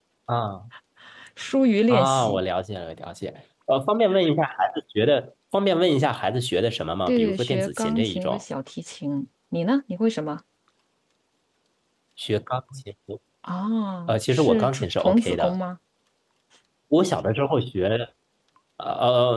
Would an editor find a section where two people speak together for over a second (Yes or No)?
Yes